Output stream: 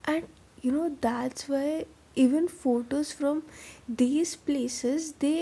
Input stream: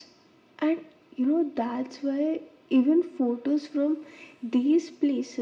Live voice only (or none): none